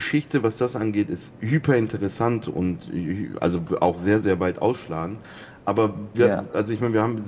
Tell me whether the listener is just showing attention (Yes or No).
Yes